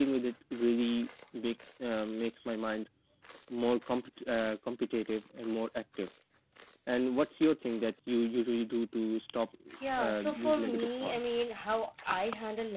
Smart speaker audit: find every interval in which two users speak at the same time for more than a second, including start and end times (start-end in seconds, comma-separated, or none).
10.0-11.3